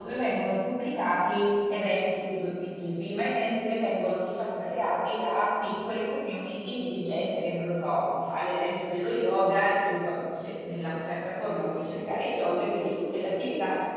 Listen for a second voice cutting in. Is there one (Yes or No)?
No